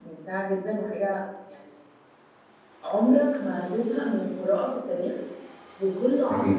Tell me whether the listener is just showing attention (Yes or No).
Yes